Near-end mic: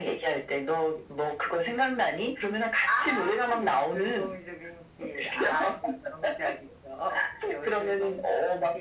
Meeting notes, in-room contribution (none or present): none